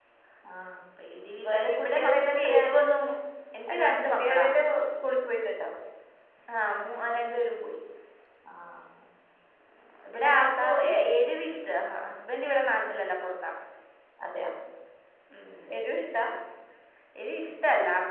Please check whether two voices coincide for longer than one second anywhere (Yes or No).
Yes